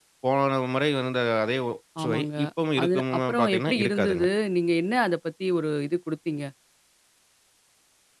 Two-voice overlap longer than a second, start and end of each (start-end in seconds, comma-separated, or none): 2.8-4.2